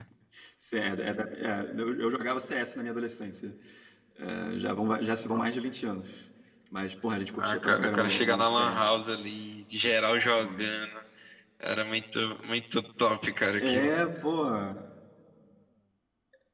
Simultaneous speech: Yes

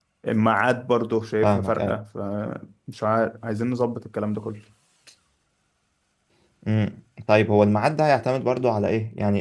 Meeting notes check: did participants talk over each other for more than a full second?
No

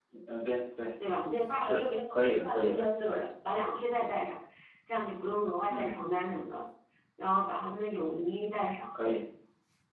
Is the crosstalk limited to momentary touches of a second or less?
Yes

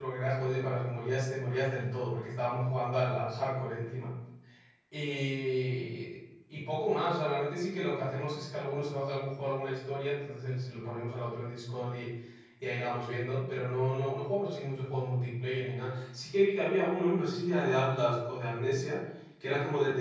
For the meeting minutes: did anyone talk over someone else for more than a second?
No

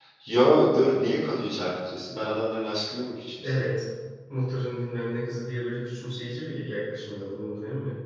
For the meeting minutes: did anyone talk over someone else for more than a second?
No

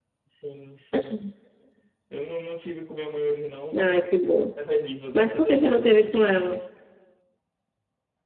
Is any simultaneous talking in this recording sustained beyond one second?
Yes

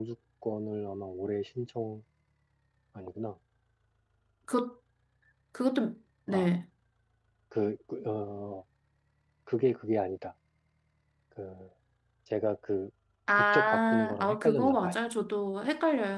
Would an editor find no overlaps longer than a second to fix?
No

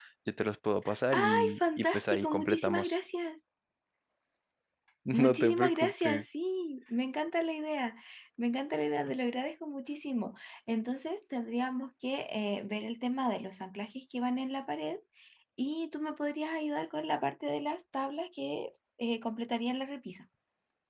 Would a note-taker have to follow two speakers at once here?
Yes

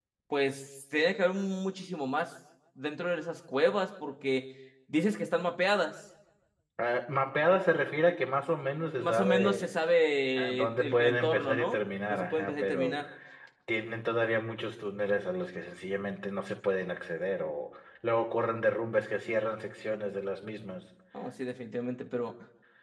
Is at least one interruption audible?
Yes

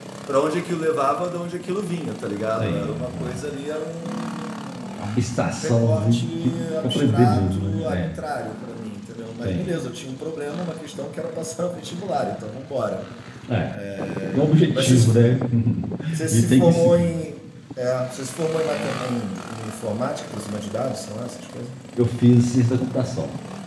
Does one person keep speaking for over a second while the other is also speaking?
Yes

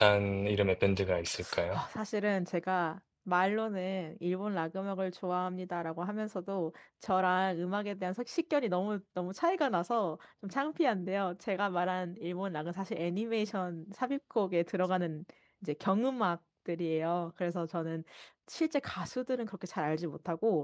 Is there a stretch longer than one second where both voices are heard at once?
No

